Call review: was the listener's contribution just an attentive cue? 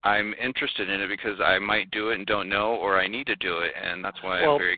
No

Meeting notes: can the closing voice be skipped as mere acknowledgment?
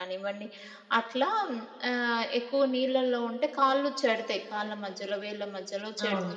Yes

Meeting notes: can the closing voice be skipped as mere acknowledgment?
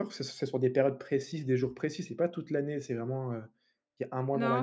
No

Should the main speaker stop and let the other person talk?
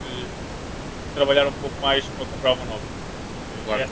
No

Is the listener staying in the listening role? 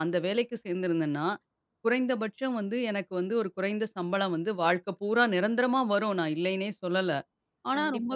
Yes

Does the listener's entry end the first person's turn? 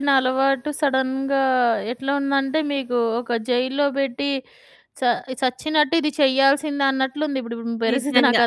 Yes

